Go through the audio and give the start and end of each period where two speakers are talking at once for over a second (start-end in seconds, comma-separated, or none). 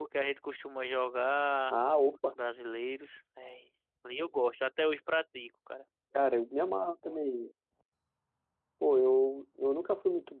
none